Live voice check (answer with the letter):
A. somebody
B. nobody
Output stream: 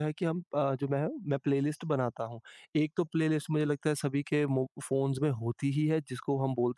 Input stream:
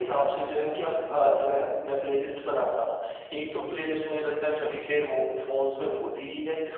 B